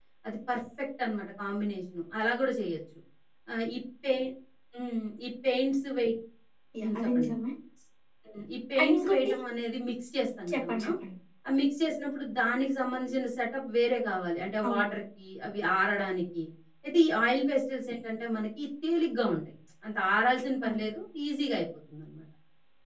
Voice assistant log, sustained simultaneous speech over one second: none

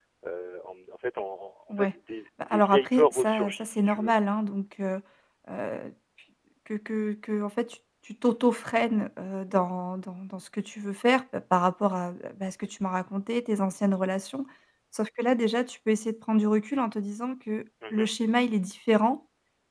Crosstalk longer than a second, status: present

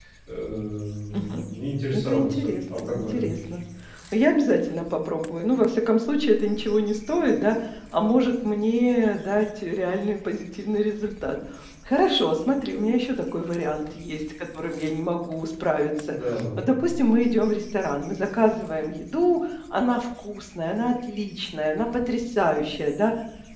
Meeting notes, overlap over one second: present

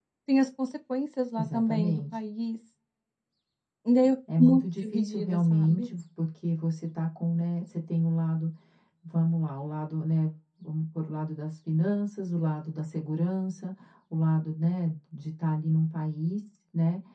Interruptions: present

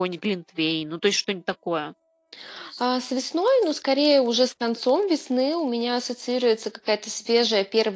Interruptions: none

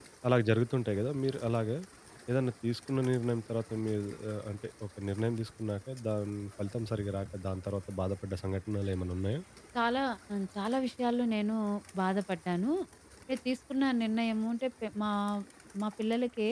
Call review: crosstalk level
none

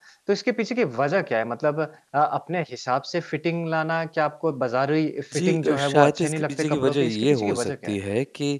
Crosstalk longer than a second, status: present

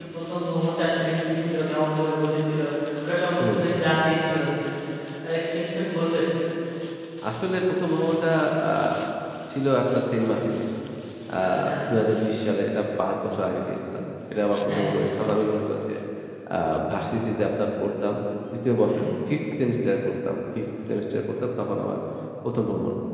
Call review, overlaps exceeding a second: none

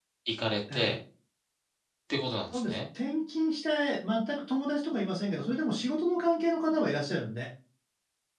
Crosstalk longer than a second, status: none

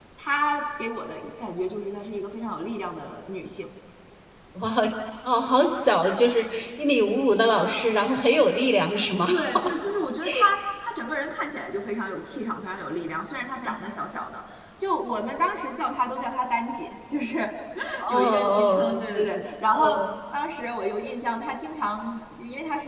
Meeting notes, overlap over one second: present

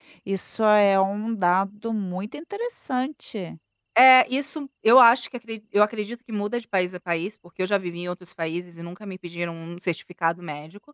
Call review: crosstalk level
none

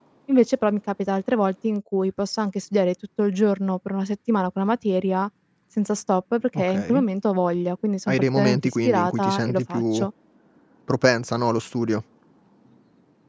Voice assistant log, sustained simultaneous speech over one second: present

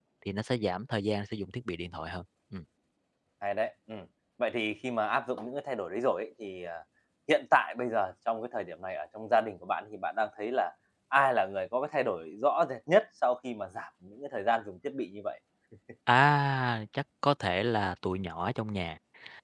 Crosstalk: none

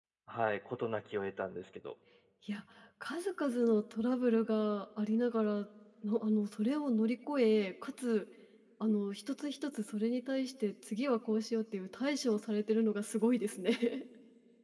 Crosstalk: none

